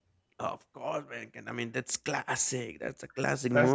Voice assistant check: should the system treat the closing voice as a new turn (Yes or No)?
No